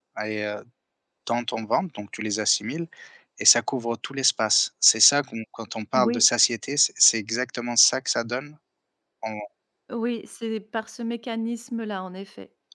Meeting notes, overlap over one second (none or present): none